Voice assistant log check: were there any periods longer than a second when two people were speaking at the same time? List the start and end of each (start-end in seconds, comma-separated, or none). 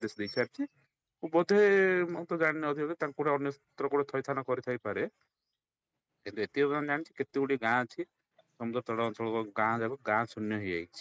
none